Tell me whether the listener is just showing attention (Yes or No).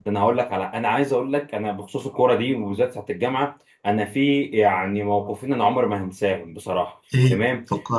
Yes